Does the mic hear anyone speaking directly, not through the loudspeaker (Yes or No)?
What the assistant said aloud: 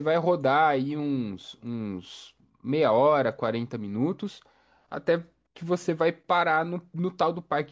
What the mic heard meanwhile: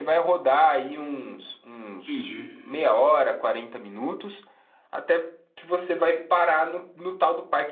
Yes